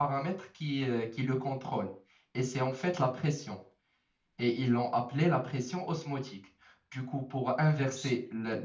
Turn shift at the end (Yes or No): No